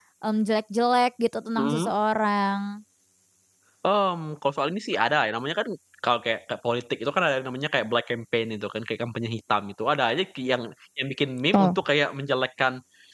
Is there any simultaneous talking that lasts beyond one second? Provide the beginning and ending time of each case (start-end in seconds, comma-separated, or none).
none